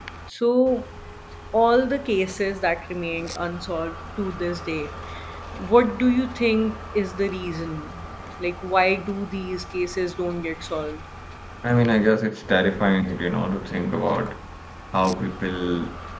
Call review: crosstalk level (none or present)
none